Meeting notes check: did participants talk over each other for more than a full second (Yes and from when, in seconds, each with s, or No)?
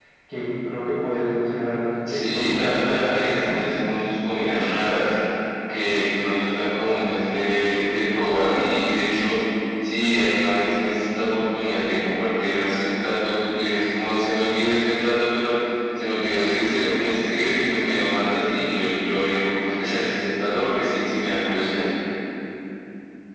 Yes, from 2.0 s